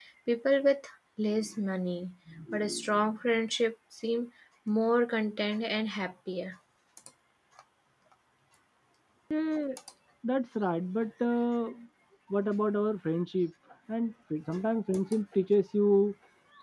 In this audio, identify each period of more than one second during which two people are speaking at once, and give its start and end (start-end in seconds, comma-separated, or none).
none